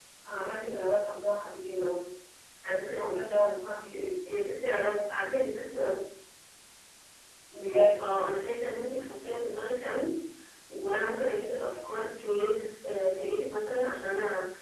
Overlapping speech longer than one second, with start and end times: none

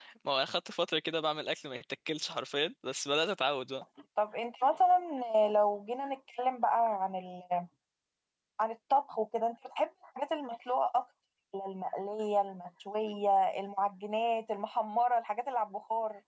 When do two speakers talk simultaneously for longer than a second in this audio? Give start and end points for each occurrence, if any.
none

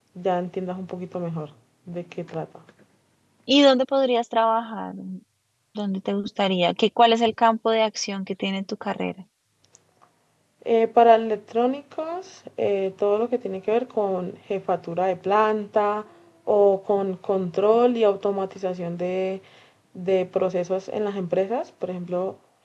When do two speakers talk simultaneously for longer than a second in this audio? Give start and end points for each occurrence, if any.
none

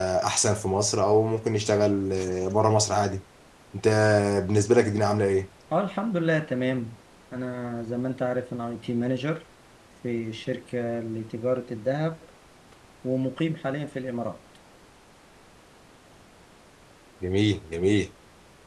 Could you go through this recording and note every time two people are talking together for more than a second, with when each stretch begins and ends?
none

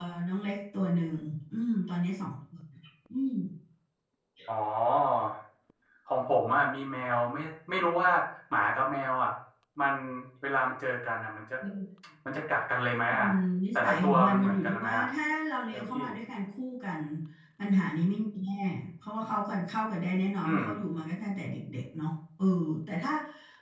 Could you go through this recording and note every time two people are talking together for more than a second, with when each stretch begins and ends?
13.8-15.1

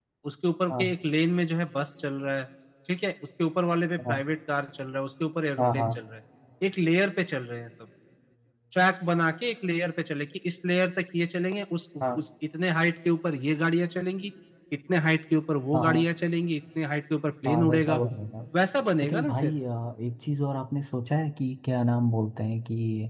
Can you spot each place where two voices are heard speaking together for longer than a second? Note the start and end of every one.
none

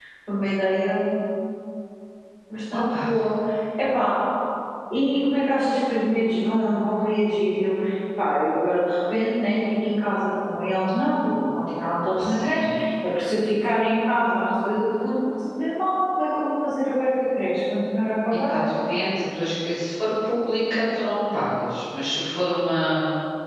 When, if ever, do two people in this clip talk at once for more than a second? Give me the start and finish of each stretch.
none

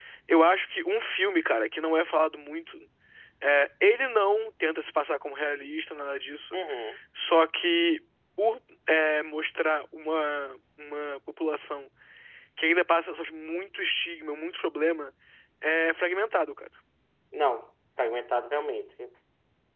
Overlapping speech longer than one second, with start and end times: none

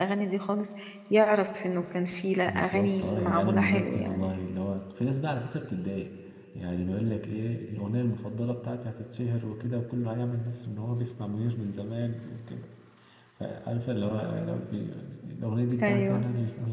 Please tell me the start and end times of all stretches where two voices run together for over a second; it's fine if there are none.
2.5-4.2

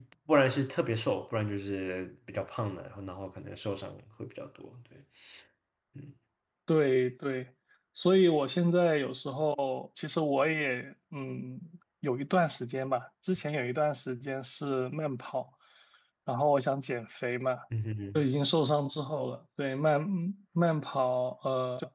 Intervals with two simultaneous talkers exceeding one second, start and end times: none

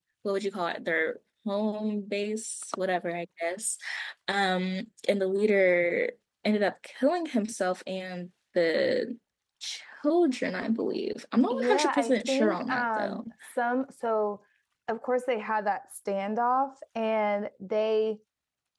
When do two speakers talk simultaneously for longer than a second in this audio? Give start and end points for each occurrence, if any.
11.5-13.2

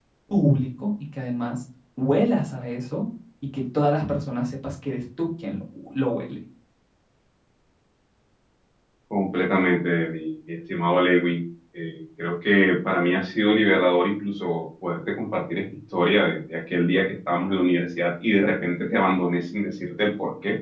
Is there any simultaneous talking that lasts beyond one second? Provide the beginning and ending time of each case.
none

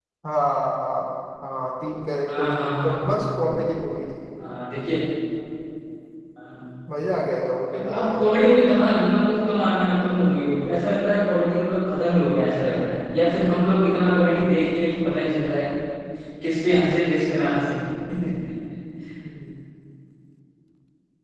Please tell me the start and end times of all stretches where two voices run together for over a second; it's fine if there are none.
2.3-3.5

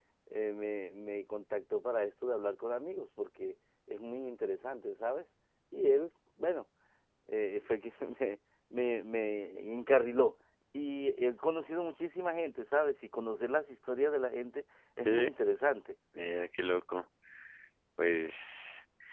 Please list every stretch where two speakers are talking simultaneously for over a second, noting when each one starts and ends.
none

